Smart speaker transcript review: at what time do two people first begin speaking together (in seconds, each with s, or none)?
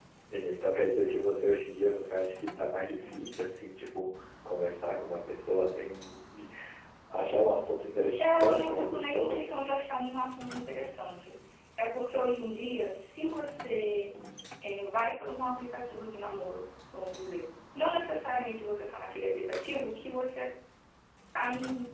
8.2 s